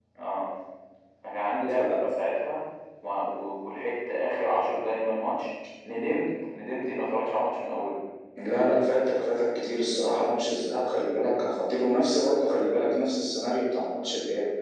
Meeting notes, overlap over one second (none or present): none